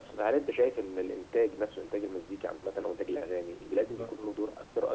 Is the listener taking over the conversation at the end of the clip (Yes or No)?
No